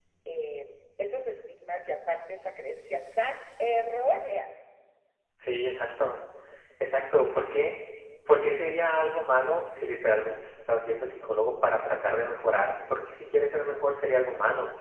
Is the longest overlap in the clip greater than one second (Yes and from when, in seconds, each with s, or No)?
No